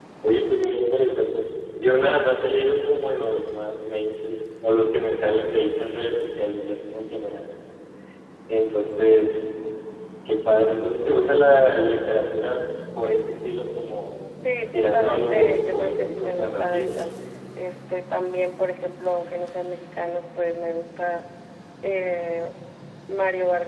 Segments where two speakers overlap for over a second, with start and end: 14.7-17.0

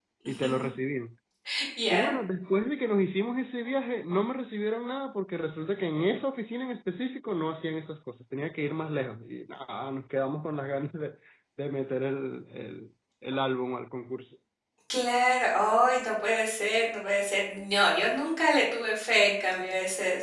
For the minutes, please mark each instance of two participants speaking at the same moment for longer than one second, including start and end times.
none

